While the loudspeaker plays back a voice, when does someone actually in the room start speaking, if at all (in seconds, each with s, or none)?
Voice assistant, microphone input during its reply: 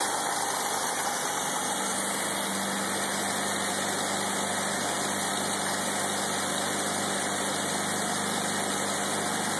none